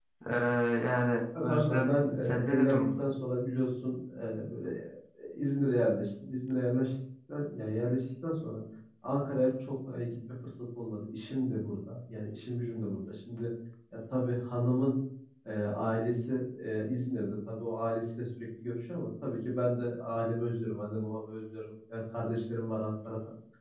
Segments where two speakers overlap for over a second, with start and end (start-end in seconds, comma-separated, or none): 1.4-3.1